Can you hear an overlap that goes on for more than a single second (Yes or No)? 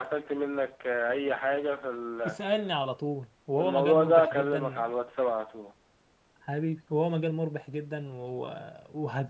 Yes